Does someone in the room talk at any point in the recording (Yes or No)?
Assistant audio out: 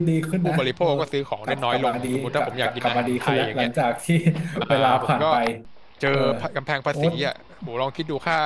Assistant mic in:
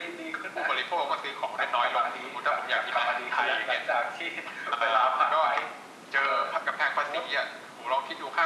No